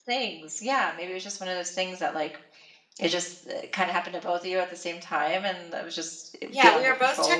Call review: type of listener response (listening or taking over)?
taking over